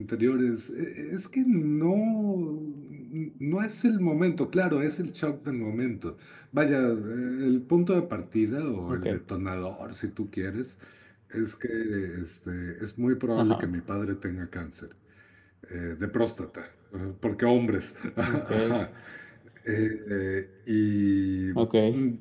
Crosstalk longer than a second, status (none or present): none